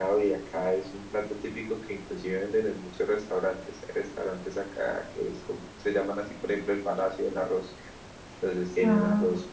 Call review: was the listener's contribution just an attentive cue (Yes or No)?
Yes